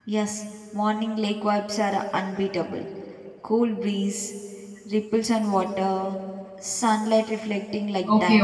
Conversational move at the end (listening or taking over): taking over